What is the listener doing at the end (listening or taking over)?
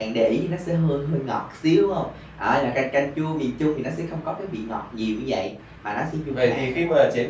taking over